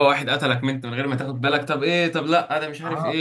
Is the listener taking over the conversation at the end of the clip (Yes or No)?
Yes